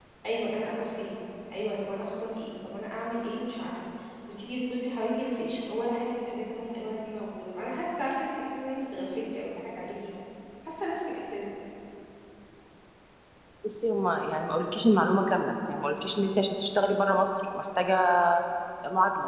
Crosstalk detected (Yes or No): No